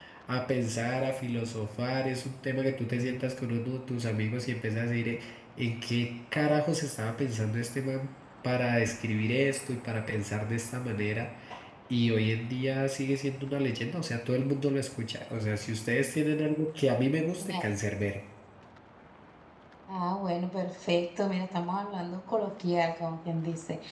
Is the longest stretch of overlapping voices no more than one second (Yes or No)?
Yes